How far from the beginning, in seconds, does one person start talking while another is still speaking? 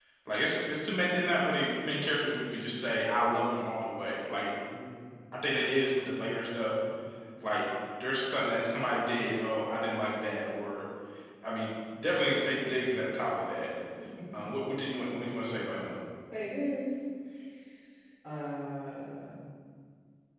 none

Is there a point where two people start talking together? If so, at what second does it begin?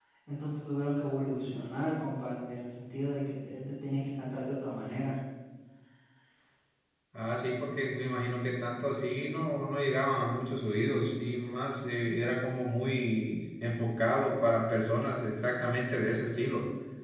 none

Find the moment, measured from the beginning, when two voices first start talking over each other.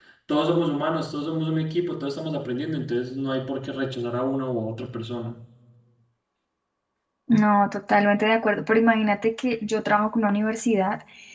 none

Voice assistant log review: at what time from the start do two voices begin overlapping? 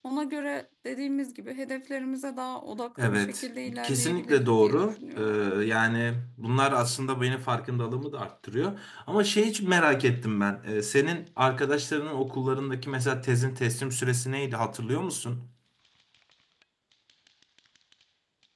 3.0 s

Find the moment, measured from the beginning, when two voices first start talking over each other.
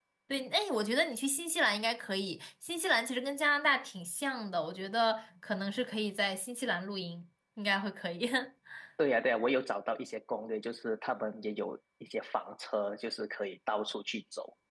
none

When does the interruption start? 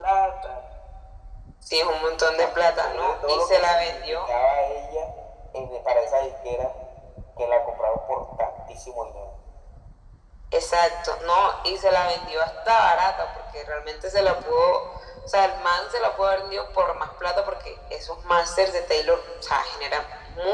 2.4 s

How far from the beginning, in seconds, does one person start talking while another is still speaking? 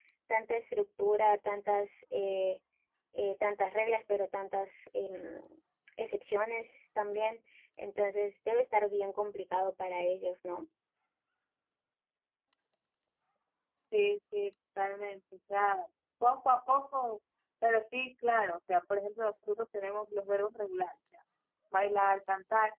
none

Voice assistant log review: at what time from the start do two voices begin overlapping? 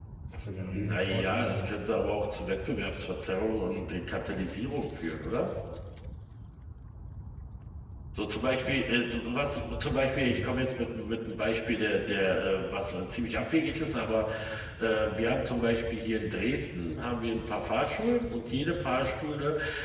0.5 s

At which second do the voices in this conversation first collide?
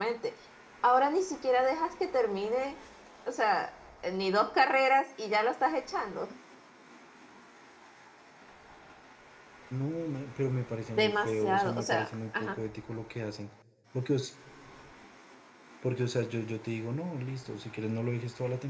10.9 s

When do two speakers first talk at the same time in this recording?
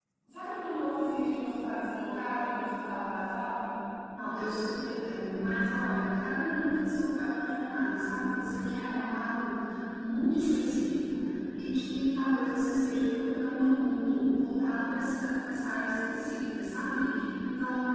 none

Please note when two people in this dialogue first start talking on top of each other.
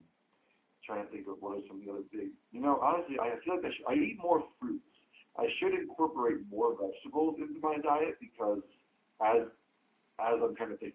none

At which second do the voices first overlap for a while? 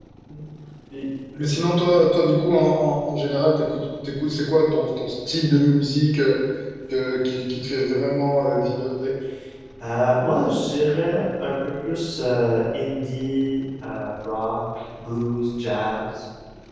none

